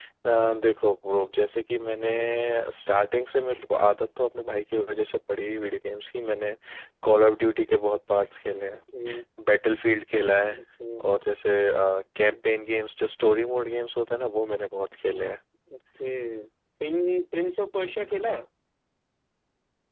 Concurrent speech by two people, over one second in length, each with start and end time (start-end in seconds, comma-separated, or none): none